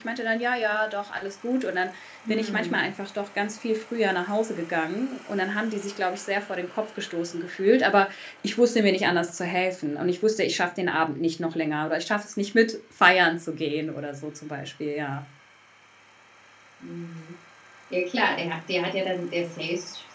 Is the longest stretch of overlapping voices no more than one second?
Yes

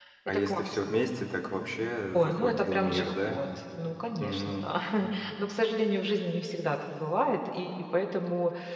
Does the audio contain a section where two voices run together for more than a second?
Yes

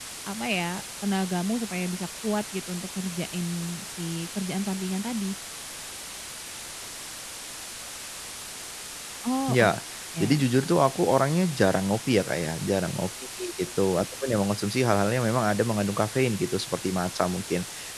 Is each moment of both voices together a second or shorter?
Yes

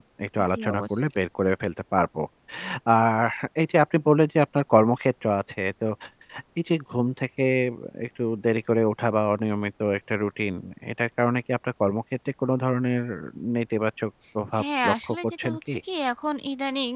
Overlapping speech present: Yes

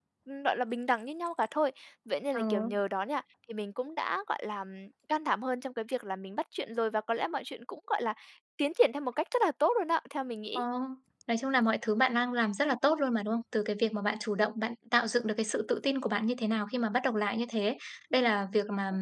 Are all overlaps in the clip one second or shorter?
Yes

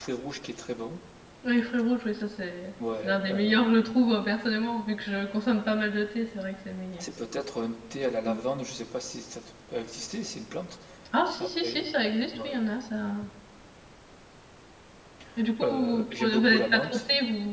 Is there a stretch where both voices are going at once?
Yes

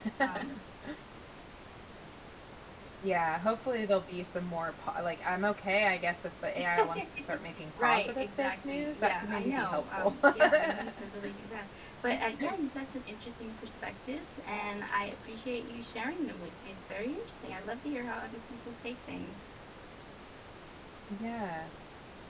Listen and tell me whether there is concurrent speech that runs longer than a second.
Yes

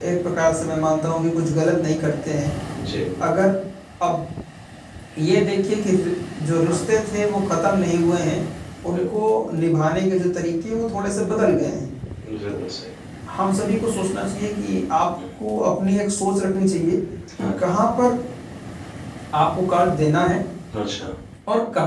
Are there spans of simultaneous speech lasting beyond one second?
No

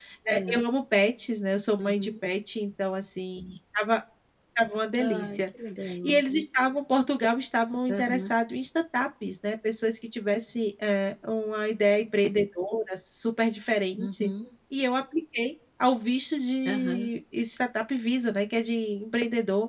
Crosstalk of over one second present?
No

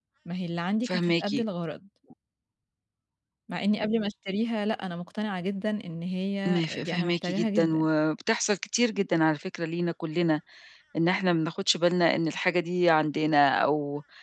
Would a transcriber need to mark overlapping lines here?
Yes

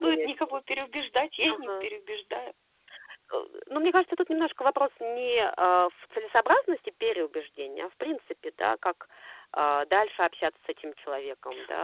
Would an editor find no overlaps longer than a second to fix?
Yes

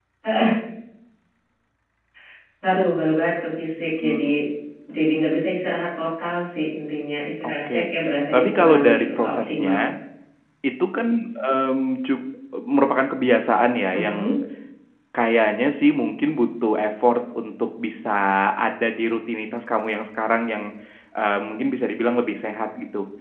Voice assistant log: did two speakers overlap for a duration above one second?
Yes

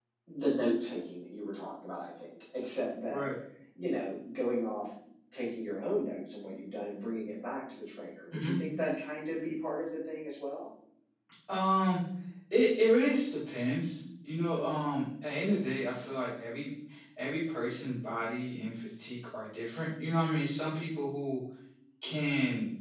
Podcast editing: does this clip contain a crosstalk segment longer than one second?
No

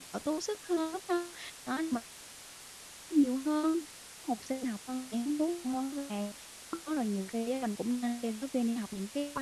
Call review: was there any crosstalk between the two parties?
No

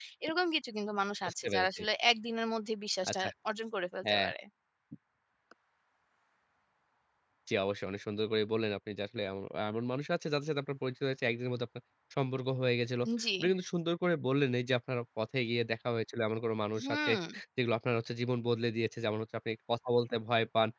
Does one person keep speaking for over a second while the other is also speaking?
No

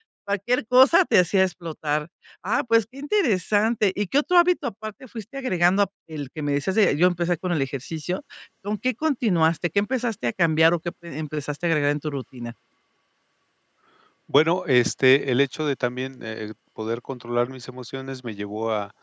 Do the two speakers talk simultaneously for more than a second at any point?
No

